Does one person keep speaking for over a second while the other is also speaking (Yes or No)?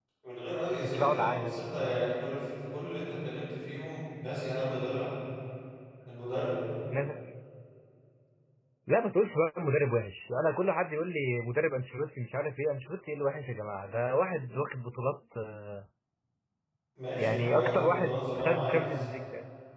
Yes